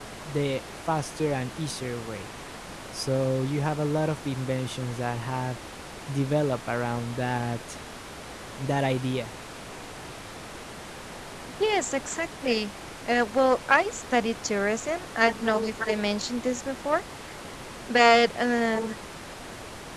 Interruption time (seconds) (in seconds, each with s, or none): none